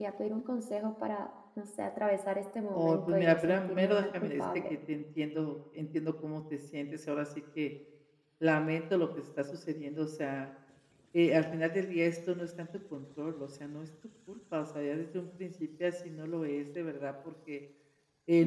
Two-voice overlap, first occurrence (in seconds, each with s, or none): 2.7 s